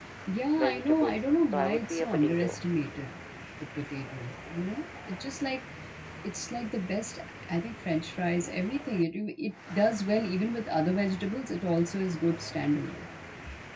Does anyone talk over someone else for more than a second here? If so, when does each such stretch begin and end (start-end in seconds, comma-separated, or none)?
0.7-2.6